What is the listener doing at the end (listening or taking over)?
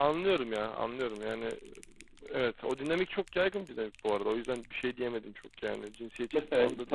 taking over